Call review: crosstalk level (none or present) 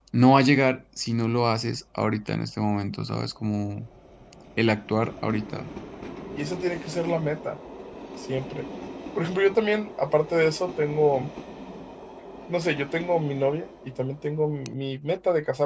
none